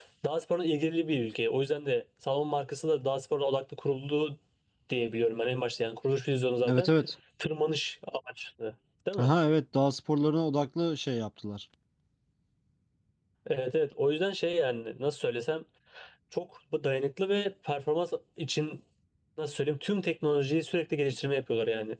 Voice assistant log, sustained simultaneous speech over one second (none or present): none